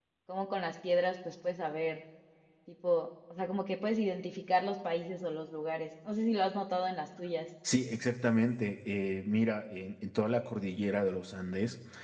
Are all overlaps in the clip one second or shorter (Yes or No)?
Yes